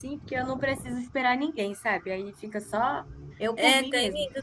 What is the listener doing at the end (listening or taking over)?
taking over